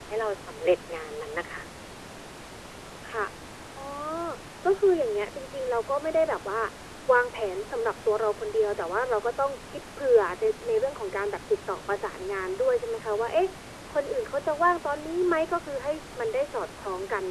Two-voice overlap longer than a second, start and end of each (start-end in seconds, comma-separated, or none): none